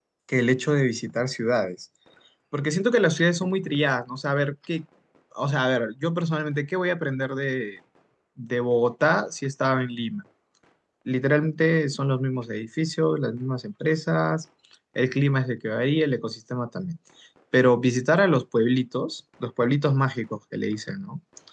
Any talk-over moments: No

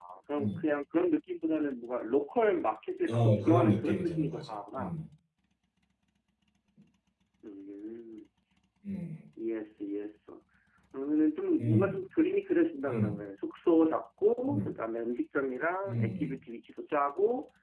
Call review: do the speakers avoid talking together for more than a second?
No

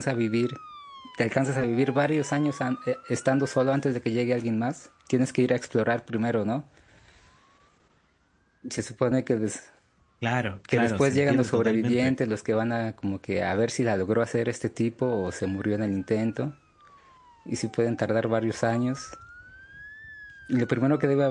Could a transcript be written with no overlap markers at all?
No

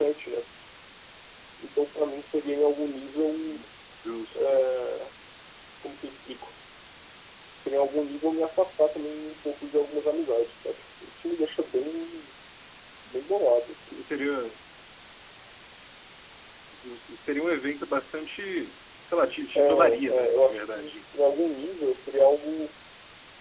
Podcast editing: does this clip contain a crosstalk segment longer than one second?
Yes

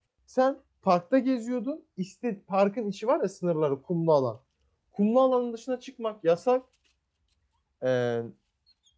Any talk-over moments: No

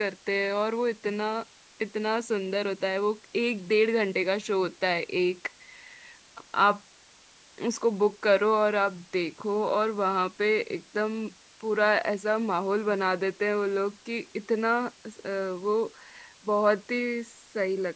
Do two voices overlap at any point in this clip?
No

